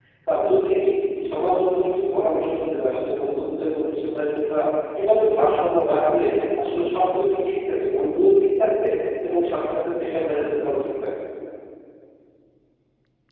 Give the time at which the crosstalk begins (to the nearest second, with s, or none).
none